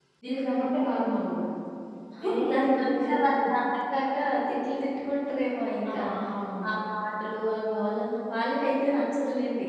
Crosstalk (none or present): present